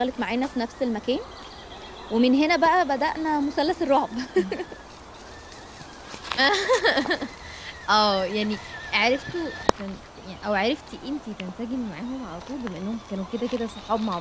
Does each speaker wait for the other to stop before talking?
Yes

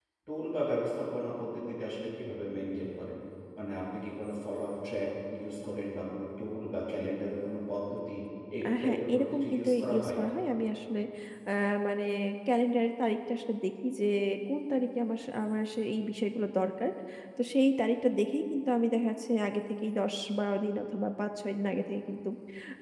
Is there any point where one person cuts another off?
Yes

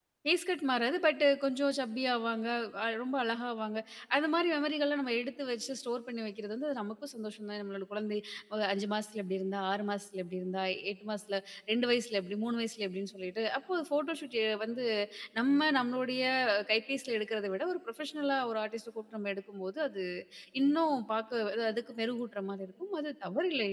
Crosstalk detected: No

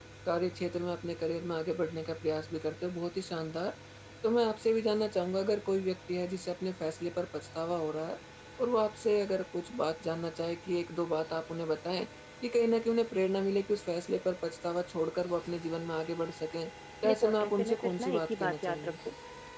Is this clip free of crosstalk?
No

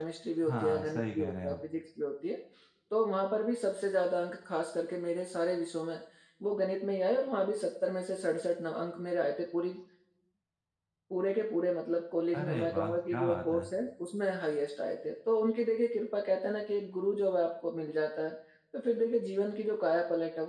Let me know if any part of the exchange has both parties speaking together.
Yes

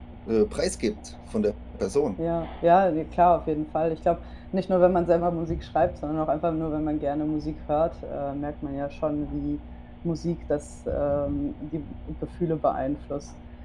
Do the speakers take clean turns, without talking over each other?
Yes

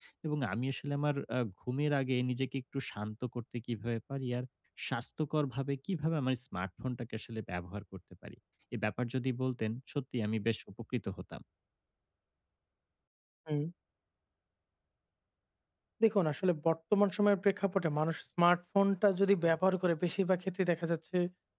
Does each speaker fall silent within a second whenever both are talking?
Yes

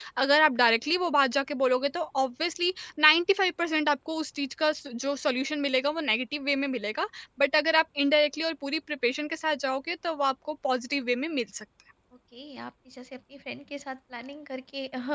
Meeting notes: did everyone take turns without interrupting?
Yes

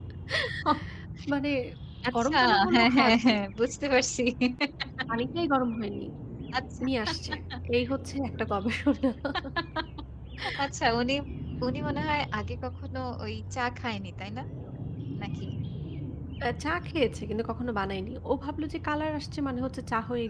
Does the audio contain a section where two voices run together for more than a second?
Yes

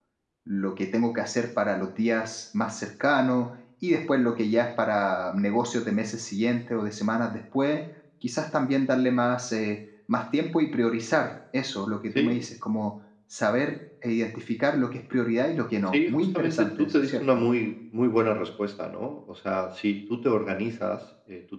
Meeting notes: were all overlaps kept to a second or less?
No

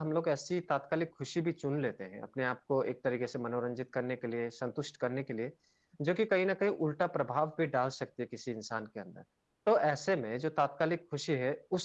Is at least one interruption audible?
No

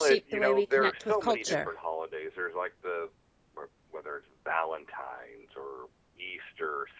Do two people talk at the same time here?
Yes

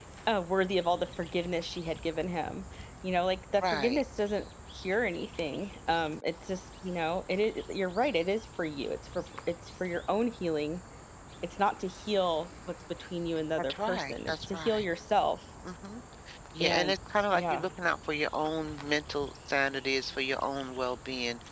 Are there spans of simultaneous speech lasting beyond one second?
Yes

